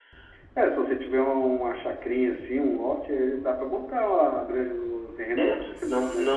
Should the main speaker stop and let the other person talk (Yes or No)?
Yes